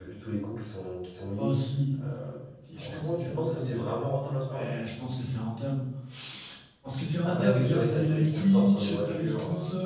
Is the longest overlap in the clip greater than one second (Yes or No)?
Yes